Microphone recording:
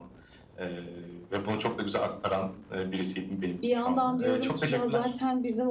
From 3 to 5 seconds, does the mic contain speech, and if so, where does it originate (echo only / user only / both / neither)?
both